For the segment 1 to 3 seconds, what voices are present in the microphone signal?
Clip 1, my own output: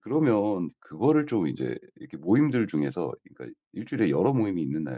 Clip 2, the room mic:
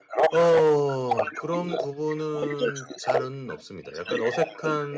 both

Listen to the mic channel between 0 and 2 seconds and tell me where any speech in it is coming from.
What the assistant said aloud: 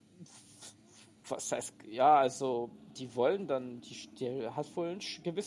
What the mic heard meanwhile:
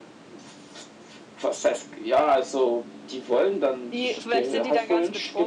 echo only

